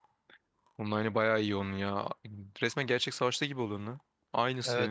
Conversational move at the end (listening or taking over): taking over